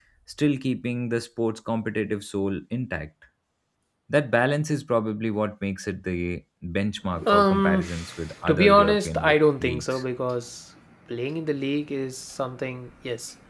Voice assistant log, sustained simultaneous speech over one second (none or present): present